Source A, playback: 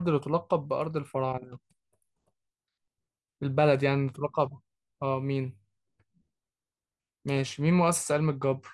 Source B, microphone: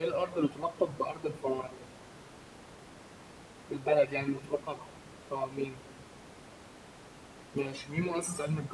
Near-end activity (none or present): none